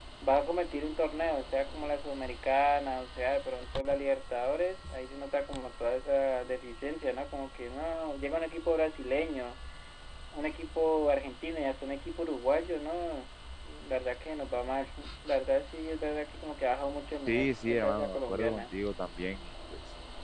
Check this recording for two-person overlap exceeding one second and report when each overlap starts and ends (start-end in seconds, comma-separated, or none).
17.3-18.8